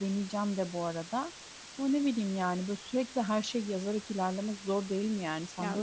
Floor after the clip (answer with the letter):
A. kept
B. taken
B